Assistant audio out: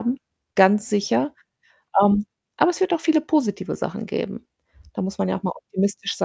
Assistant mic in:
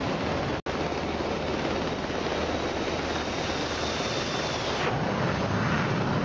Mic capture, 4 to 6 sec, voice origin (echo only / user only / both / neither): neither